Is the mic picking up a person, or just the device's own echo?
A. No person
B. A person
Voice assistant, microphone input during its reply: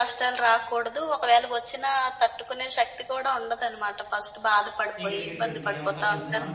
B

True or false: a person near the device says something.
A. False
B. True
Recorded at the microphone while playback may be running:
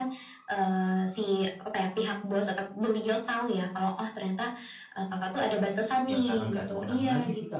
B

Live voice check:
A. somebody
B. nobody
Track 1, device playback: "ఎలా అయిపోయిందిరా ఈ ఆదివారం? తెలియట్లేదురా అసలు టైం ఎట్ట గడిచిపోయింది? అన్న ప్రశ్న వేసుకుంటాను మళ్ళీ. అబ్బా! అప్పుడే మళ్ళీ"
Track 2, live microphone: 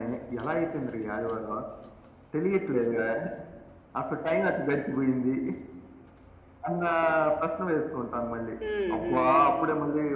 A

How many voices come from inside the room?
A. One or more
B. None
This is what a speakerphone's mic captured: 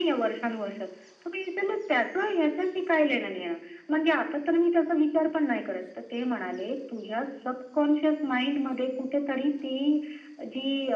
B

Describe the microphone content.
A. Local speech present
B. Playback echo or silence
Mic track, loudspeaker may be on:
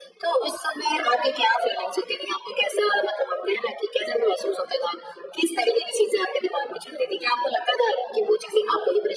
B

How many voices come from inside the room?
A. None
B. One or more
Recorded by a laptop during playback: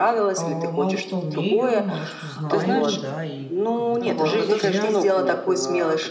B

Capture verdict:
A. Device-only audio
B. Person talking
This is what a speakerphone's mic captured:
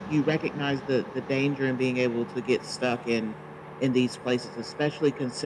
A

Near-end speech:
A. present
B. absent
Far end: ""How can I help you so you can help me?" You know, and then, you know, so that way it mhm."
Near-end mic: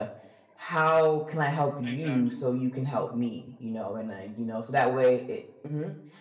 A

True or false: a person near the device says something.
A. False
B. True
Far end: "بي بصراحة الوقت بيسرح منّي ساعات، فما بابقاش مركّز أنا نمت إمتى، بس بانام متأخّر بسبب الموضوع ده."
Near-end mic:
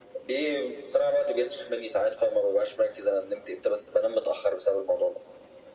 A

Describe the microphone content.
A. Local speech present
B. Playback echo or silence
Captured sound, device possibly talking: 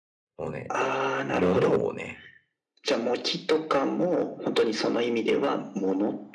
A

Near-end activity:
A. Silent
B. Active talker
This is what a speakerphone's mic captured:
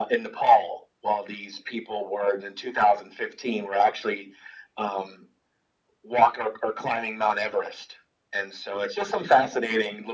A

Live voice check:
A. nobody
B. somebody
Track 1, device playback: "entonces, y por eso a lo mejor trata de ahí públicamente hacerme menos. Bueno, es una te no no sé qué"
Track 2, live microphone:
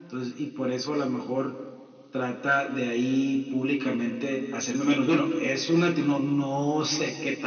A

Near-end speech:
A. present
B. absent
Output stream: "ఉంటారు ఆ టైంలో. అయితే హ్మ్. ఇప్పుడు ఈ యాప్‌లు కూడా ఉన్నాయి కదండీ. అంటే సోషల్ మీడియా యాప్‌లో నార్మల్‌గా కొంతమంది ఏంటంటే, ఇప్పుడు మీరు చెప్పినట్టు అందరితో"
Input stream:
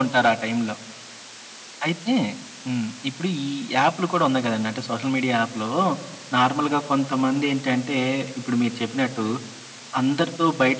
B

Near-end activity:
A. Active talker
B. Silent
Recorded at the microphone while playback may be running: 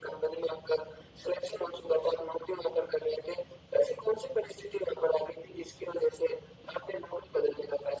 B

